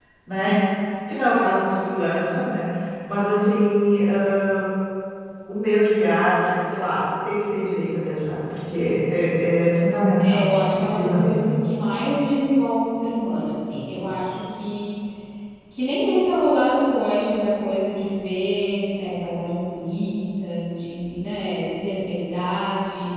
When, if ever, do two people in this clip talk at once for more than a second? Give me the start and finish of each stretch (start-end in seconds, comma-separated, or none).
10.2-11.4